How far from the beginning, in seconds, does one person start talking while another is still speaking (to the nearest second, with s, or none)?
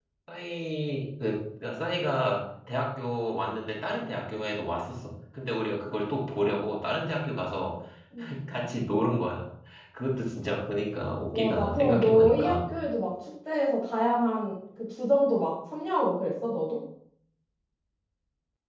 11 s